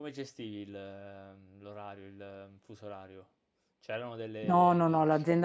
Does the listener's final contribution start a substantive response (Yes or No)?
Yes